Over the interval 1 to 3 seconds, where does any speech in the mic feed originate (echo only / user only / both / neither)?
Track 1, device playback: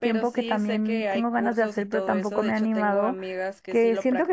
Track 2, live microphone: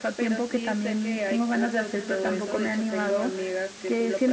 echo only